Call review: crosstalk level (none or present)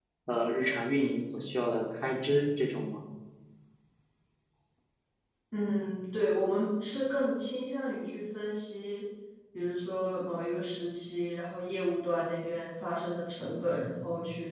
none